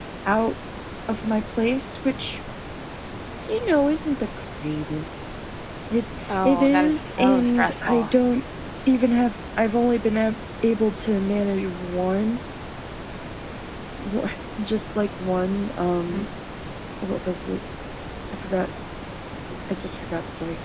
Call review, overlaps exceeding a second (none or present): present